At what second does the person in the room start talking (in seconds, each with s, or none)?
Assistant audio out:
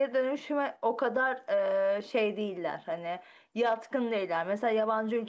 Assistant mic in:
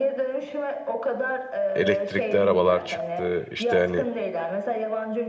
1.7 s